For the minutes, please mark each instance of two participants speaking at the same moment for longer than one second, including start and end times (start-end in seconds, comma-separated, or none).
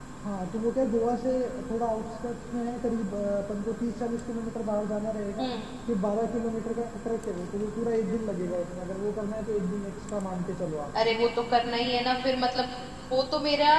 none